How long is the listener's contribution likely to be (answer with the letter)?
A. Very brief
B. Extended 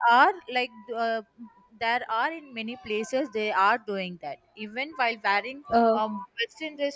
A